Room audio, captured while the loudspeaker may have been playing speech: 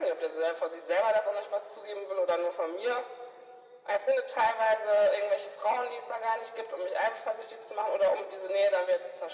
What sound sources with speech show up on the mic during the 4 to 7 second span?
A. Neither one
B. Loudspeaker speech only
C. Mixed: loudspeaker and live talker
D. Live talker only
B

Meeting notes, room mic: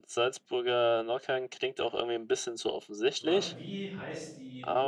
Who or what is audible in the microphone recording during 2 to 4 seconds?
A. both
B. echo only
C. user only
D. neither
A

